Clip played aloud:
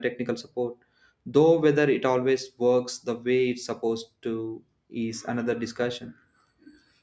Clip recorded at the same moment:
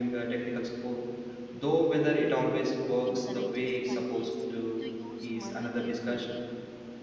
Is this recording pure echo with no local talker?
No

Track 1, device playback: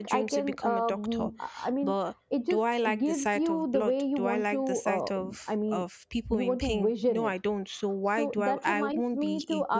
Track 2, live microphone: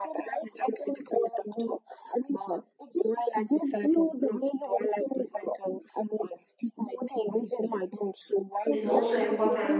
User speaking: Yes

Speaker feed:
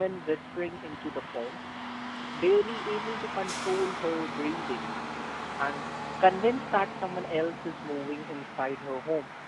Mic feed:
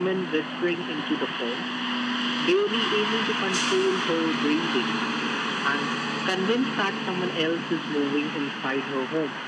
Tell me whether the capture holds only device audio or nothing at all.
Yes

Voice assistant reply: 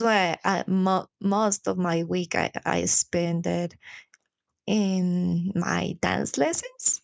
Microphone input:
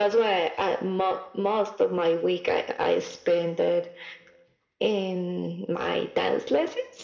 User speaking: No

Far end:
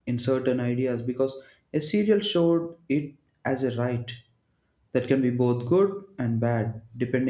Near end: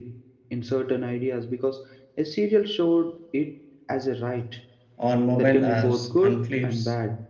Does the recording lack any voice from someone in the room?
No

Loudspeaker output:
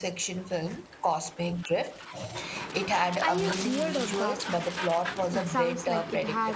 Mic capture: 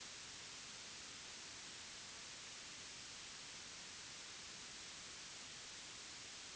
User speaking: No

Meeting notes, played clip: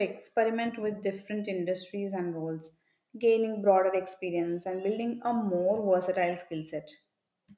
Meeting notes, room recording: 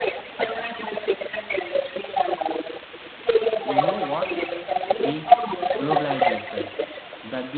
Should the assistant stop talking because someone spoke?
Yes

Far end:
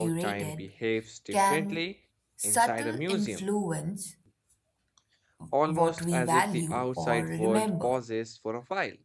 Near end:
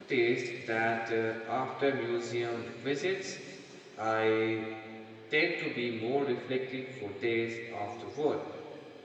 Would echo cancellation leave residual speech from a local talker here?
Yes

